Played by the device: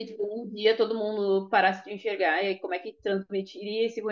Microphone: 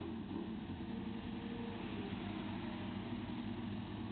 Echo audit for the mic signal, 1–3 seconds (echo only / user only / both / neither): neither